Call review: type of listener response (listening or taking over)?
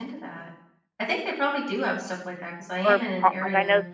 taking over